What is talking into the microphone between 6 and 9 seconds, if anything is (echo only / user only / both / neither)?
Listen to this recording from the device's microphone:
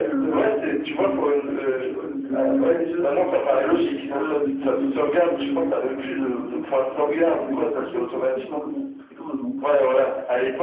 both